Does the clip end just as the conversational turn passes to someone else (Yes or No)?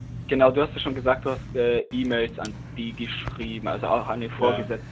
No